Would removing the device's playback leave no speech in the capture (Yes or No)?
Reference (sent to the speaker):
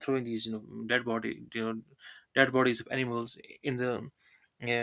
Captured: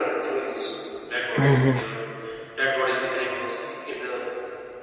No